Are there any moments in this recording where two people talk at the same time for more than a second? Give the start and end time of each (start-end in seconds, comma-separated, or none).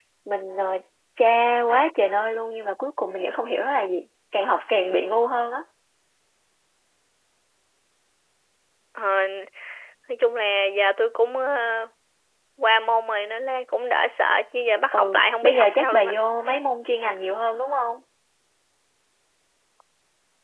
14.9-16.1